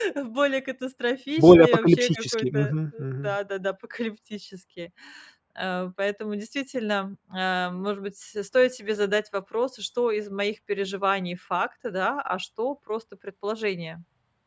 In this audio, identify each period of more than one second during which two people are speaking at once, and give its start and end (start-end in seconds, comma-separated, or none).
1.4-2.7